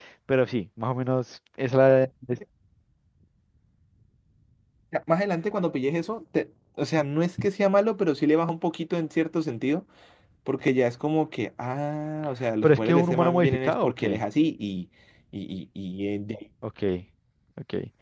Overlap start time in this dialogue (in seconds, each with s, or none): 12.6 s